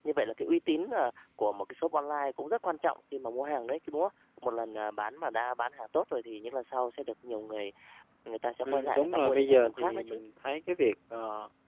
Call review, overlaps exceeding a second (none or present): present